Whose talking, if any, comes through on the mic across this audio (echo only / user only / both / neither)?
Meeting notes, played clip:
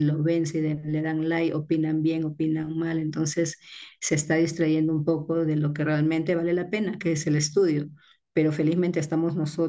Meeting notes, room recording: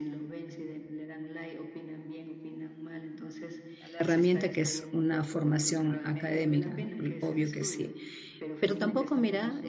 both